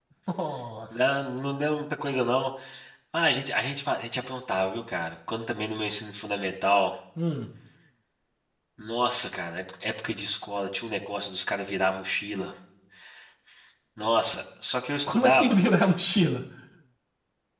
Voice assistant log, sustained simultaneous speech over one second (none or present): none